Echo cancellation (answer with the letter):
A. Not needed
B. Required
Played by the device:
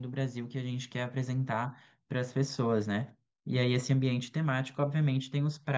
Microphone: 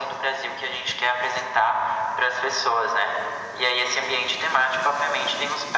B